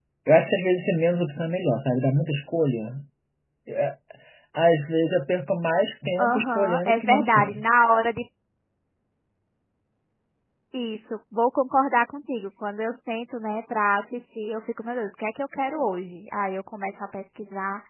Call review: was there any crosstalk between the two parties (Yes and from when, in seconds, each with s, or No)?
Yes, from 6.2 s